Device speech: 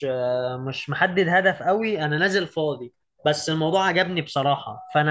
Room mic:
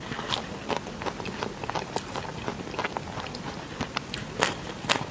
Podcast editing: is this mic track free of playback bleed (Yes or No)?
Yes